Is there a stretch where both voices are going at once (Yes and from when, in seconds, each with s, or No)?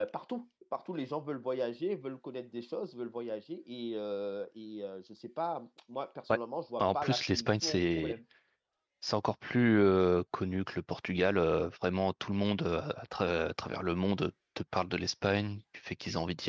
Yes, from 6.8 s